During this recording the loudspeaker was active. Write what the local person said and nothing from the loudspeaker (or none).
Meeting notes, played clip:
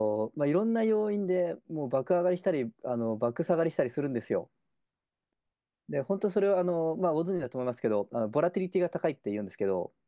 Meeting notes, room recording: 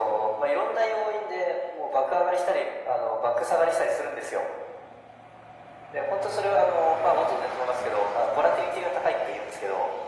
none